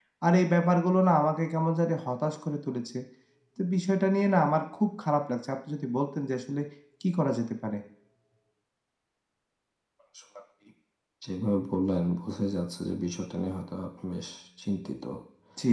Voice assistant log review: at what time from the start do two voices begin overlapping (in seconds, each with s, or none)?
none